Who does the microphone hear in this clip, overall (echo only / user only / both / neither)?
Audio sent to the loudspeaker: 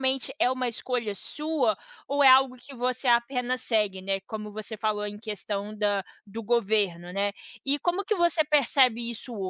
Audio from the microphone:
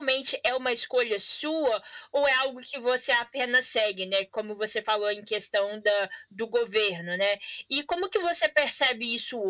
echo only